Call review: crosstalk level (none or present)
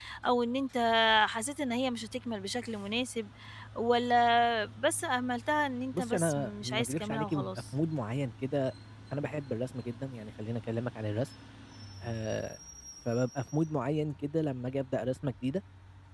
present